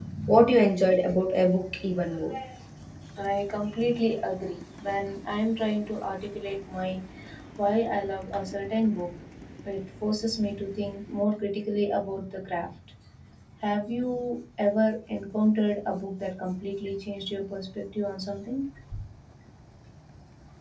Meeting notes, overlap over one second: none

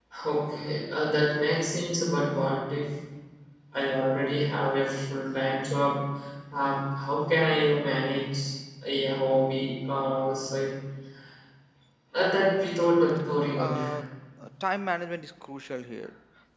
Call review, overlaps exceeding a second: none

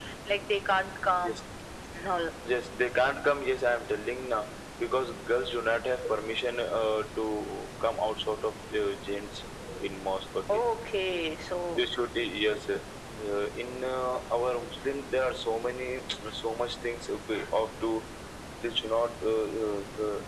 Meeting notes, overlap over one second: none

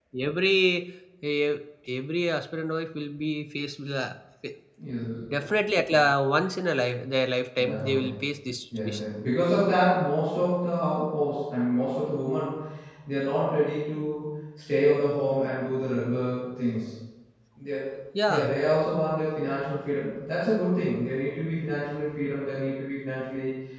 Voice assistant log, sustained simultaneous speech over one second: none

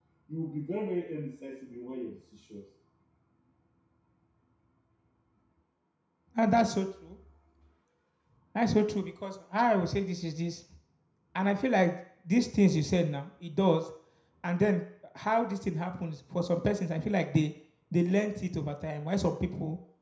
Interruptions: none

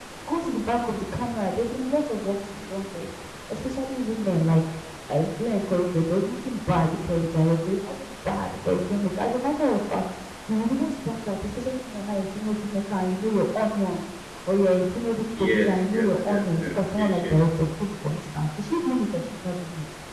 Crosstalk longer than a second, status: present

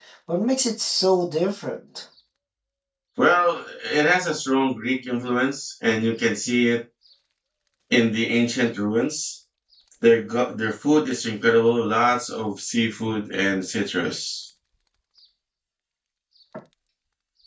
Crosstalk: none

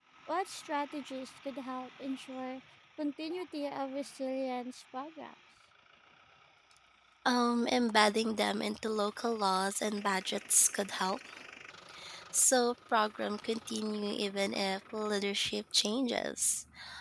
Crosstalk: none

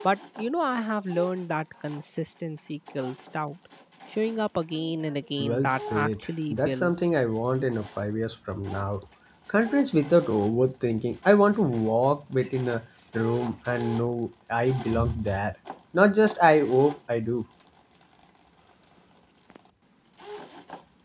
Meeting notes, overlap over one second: present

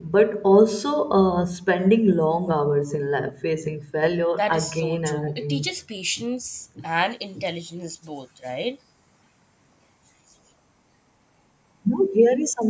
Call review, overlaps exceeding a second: present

